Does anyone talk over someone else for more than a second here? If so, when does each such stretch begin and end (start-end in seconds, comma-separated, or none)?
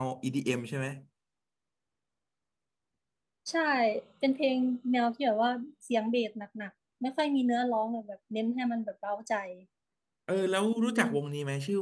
none